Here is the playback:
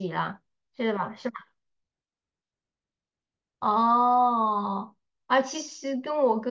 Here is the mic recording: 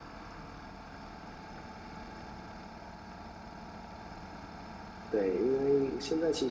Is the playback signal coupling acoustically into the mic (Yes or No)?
No